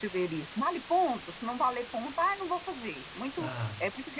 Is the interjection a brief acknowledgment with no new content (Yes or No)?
Yes